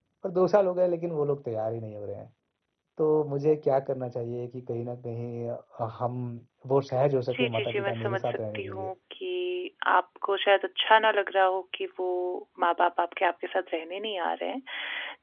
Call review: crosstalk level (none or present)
present